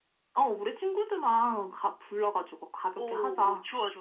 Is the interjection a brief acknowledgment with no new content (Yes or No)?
No